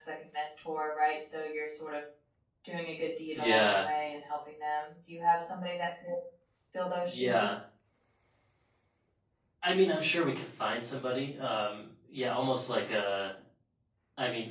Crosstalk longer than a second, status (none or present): none